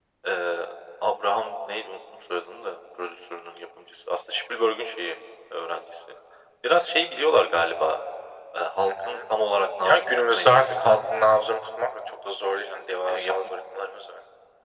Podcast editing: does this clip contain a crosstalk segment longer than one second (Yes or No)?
Yes